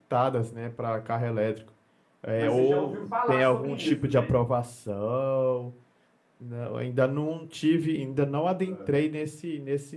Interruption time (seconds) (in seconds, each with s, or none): 2.4 s